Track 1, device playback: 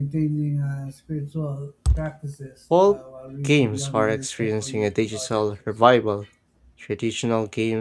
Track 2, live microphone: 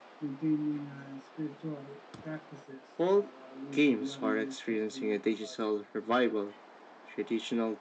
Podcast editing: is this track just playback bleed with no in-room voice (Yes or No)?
Yes